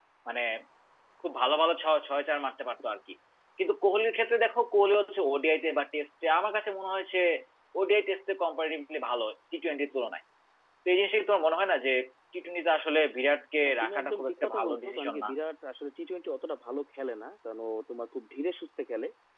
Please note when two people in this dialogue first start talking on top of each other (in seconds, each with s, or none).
13.7 s